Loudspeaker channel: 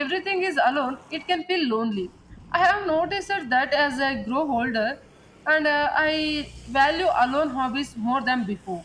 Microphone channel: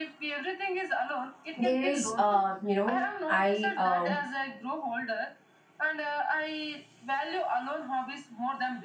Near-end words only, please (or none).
there is, uh, you know, I um,